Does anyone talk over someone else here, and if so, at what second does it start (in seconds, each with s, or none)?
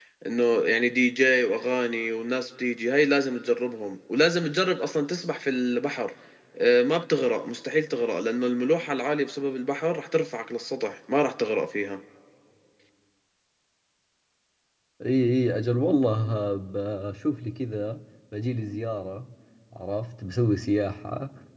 none